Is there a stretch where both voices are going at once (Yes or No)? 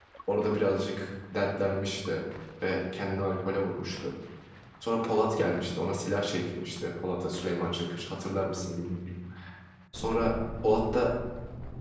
No